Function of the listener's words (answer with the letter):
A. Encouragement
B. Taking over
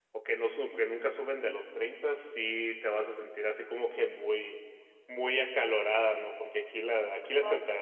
A